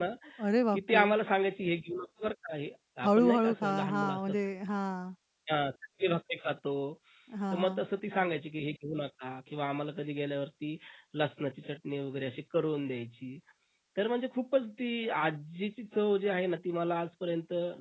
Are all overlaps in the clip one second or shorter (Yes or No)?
No